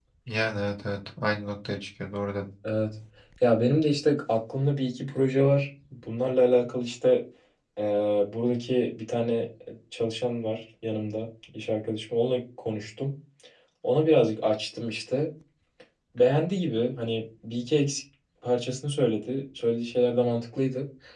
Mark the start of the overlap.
none

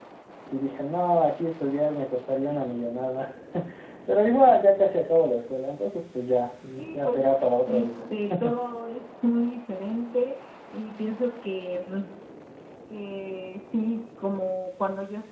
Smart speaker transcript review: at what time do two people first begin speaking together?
6.7 s

